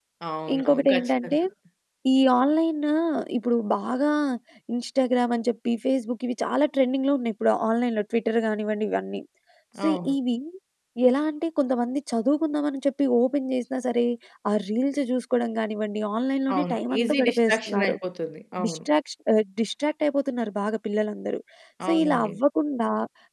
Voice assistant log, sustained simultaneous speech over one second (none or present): present